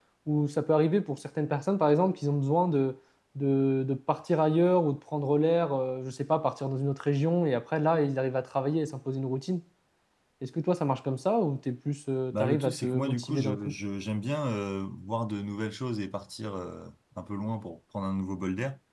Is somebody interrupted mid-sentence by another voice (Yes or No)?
Yes